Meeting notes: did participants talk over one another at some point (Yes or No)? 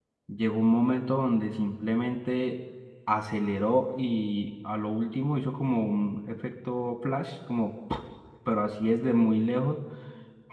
No